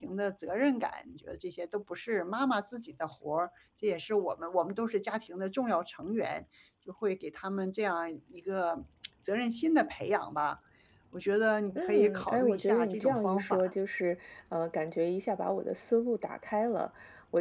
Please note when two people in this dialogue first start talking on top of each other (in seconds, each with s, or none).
11.8 s